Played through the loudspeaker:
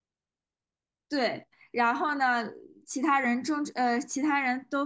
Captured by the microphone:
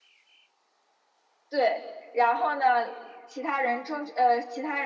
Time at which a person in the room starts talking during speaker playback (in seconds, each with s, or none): none